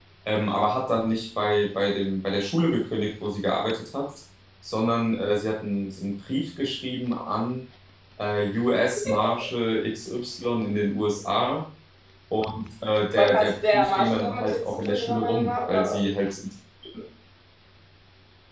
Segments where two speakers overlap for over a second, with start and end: 13.2-16.0

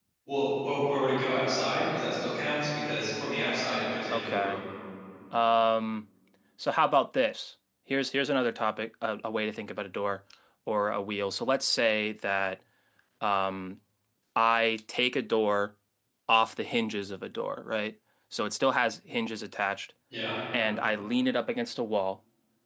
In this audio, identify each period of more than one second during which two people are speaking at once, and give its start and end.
none

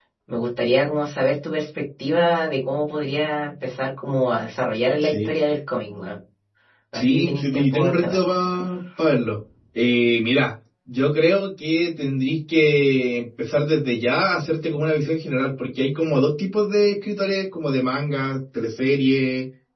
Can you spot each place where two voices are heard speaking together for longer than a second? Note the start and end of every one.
6.9-8.2

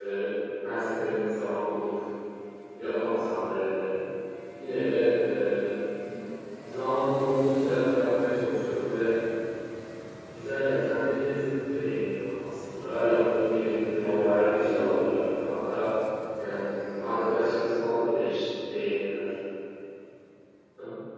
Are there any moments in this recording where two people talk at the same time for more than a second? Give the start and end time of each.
14.0-15.3, 16.9-18.4

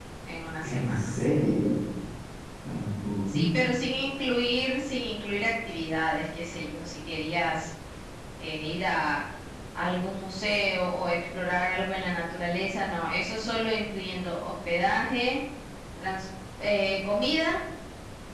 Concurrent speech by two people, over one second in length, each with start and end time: none

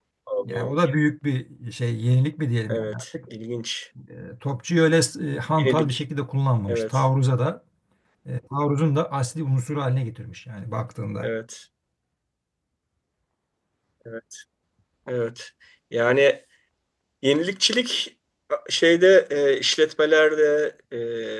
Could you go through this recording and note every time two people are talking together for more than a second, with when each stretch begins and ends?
none

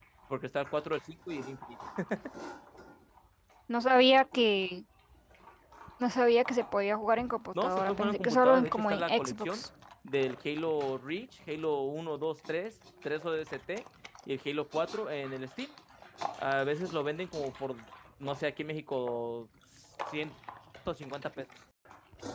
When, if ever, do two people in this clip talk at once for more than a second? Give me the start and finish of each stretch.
7.6-9.6

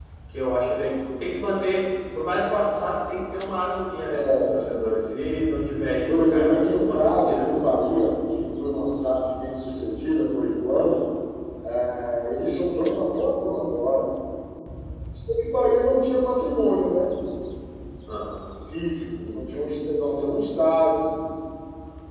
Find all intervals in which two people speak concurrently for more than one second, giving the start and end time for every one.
6.1-7.5

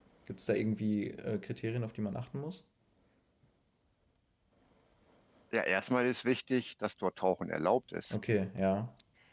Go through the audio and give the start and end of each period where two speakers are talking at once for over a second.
none

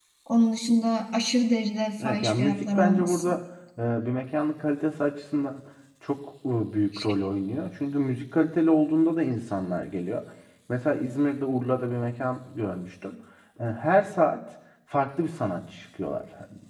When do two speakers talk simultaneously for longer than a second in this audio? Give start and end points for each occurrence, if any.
2.0-3.4

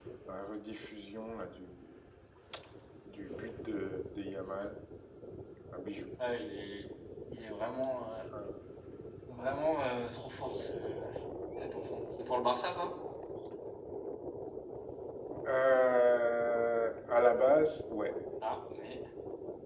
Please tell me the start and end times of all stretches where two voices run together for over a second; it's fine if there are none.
none

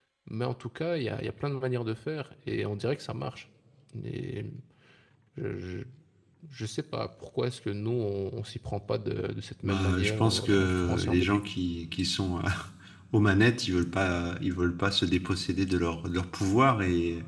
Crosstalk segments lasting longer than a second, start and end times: 9.6-11.4

